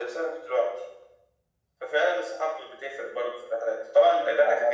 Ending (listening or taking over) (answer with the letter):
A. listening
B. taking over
A